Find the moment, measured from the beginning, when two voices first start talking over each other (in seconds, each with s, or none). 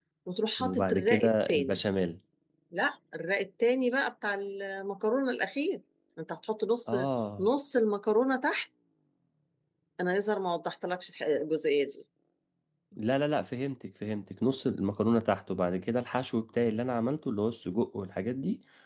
0.6 s